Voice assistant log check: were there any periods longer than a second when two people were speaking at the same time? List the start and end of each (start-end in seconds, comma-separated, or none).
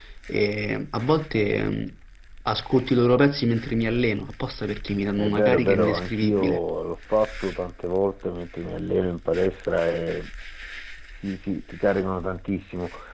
5.2-6.6